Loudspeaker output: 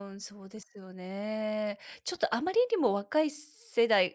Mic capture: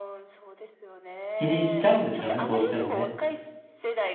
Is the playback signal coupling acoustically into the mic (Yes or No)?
Yes